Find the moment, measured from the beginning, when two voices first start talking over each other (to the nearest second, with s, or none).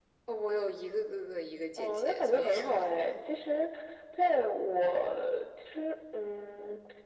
2 s